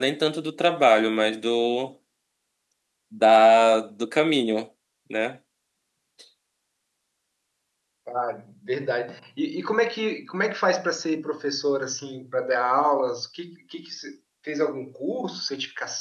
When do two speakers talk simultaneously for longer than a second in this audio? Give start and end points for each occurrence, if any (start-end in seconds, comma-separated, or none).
none